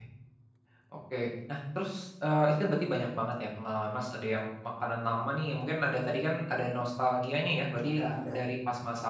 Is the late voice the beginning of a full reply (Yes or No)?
No